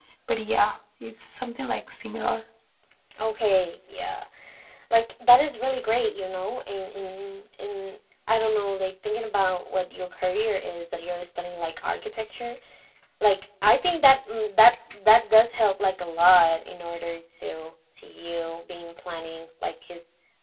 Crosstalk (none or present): none